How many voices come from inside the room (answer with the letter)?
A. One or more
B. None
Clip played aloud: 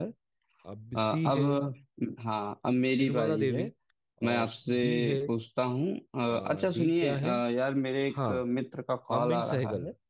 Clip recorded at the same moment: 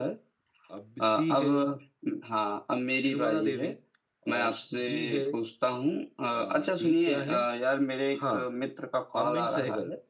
B